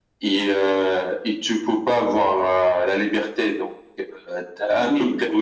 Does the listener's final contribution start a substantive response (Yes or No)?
No